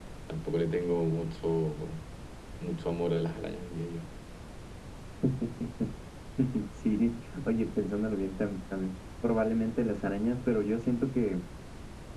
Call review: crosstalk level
none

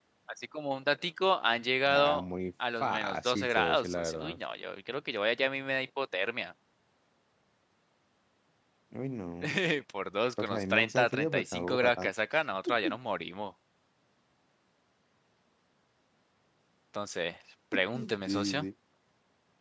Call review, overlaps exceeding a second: present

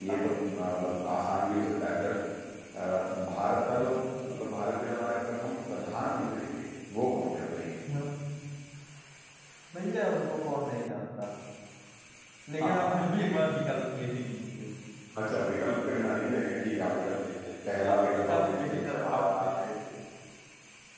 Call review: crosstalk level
present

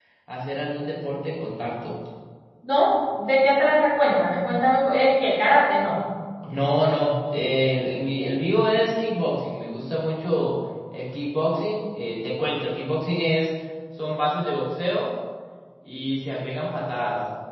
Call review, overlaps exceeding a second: none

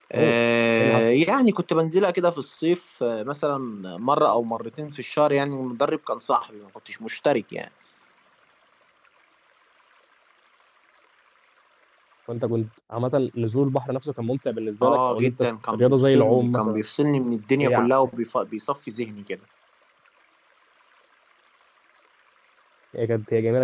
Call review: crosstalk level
present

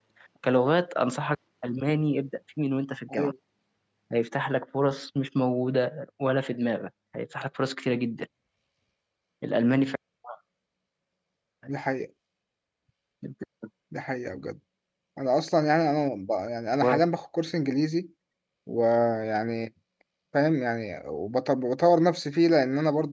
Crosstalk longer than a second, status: none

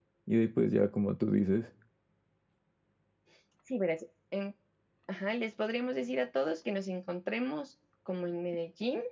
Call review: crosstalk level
none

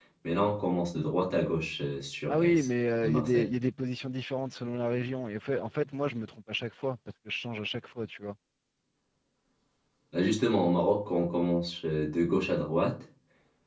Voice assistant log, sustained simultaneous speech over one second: none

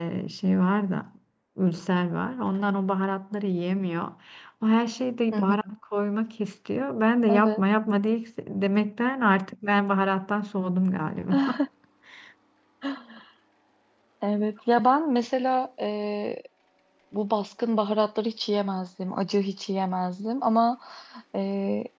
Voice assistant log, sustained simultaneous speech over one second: none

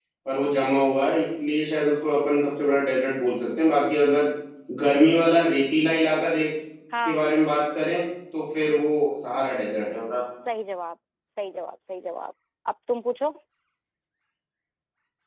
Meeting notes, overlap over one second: none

